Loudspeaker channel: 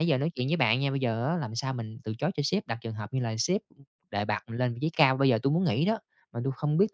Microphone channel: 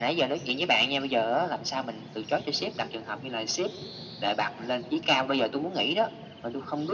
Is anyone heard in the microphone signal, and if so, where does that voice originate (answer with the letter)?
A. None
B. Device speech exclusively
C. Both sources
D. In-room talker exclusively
B